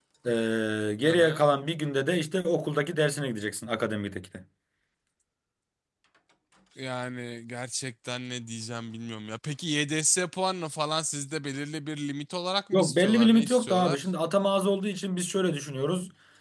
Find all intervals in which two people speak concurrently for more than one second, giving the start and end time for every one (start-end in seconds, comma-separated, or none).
12.7-14.0